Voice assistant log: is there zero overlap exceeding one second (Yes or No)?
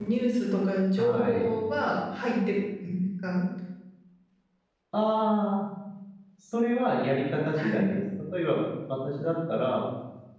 Yes